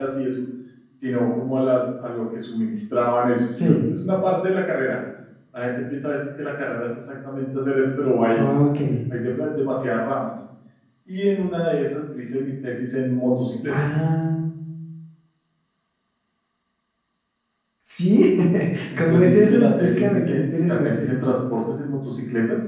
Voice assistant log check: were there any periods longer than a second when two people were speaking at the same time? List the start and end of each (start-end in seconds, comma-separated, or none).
19.0-21.1